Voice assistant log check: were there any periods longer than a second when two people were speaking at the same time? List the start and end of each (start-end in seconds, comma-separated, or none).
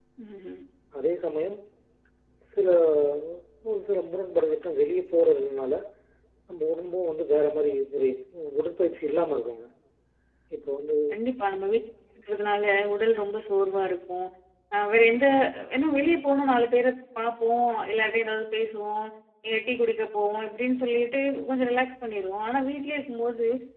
none